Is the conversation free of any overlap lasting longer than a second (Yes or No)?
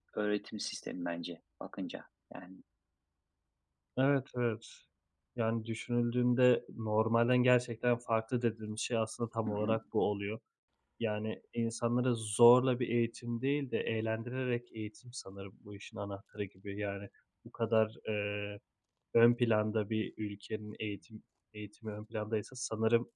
Yes